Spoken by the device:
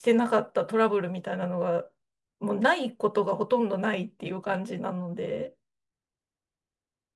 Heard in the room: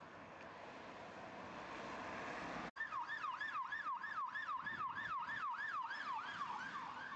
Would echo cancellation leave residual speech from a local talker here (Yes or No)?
No